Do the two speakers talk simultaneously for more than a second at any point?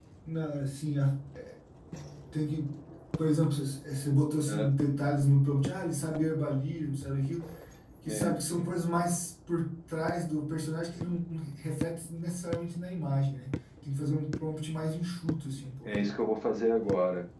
No

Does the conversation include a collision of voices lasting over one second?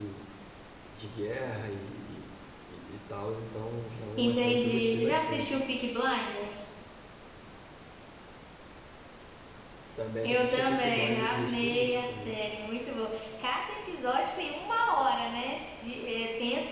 Yes, from 4.2 s

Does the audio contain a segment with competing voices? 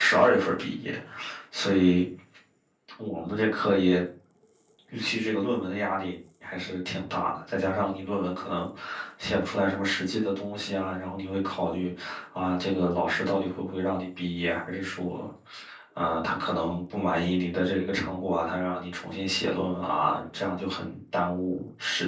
No

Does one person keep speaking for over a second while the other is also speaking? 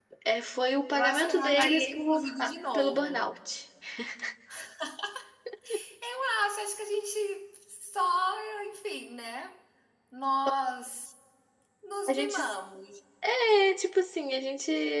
Yes, from 1.0 s

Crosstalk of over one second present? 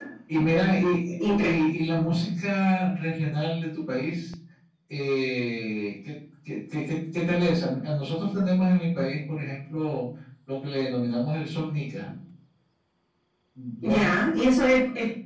No

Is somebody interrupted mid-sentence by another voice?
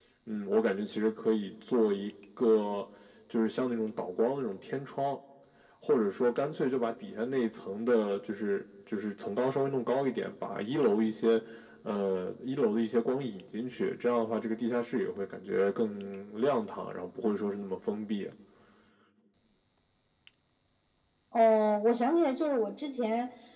No

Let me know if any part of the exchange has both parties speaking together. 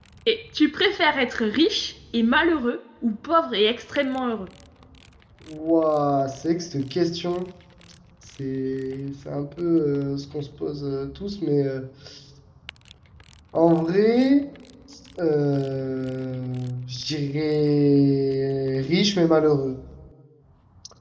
No

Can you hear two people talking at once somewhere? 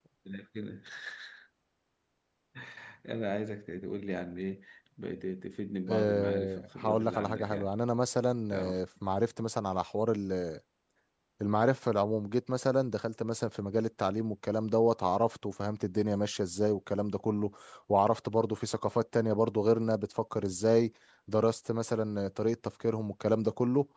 Yes, from 5.9 s

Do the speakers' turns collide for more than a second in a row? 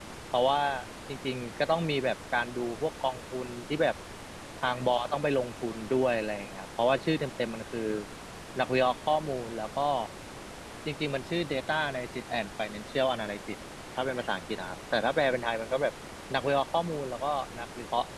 No

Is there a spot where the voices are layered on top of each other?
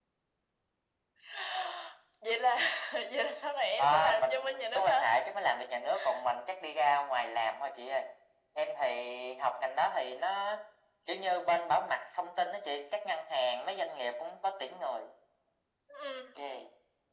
Yes, from 3.8 s

